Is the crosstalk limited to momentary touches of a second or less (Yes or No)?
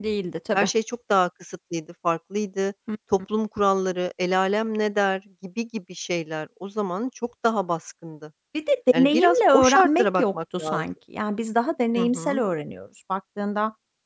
No